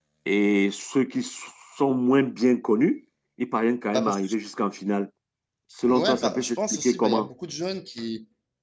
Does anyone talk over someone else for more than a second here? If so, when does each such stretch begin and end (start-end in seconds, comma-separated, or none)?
5.8-7.3